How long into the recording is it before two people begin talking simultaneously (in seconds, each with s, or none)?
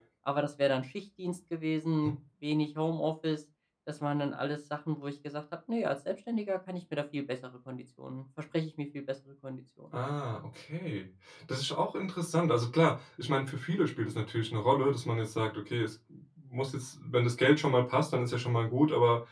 none